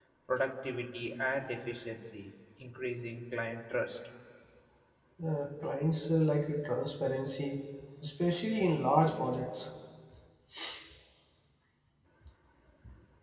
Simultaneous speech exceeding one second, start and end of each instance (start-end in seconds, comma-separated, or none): none